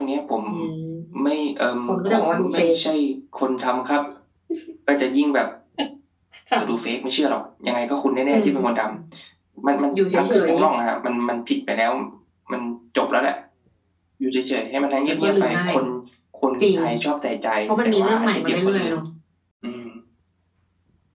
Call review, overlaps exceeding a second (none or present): present